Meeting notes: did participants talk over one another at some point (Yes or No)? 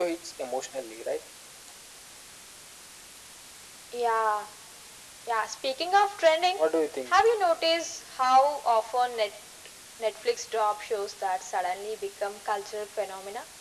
No